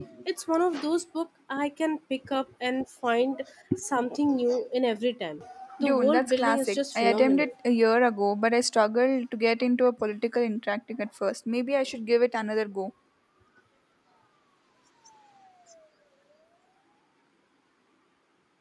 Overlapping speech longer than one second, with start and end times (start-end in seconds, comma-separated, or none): 5.8-7.5